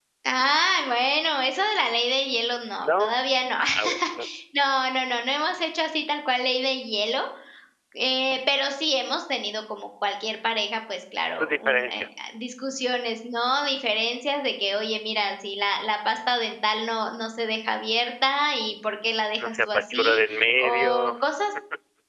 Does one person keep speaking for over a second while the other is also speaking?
Yes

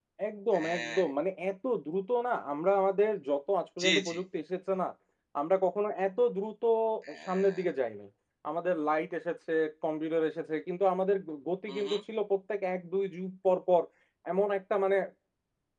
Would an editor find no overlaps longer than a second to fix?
Yes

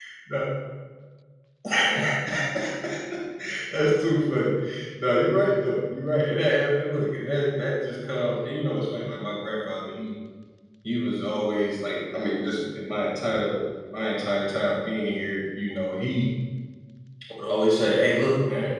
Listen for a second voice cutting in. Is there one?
No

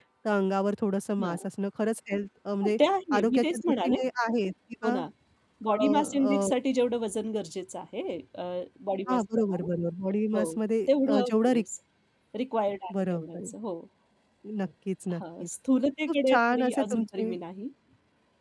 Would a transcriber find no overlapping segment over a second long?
No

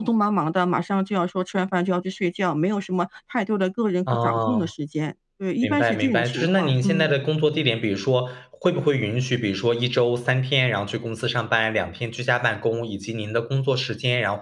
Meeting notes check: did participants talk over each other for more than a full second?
Yes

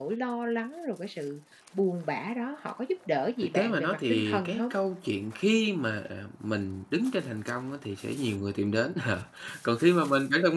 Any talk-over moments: Yes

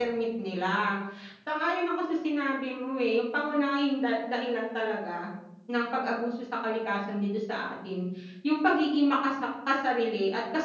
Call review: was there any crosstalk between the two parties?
No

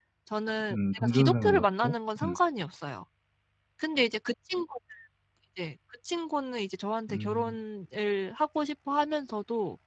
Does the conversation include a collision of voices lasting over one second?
Yes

